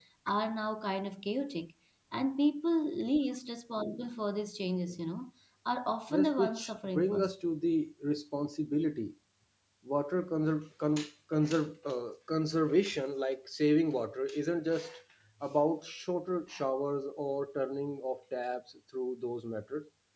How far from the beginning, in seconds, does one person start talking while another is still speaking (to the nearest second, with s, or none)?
6 s